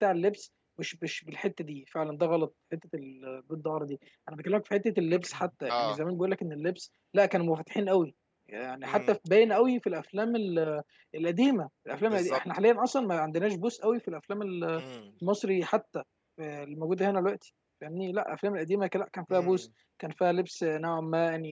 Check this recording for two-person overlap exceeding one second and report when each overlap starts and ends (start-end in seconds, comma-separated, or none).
none